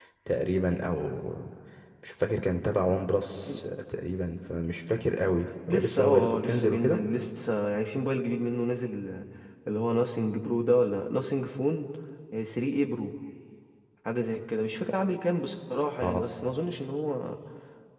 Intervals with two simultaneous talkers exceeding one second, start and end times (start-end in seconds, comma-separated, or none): 5.7-7.0